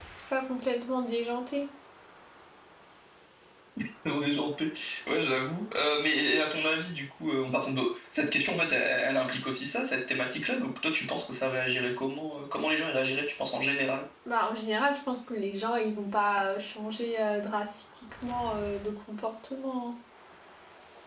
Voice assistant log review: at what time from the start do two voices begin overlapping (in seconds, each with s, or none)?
none